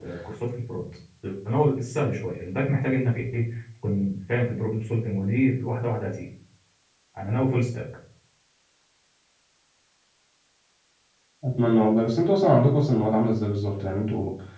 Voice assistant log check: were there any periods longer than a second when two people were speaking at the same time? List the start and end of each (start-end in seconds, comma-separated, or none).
none